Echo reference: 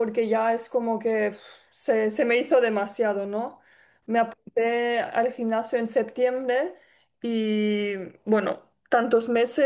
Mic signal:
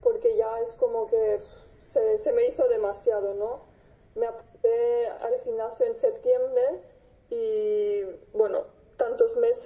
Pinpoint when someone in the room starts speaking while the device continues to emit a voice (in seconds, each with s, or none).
none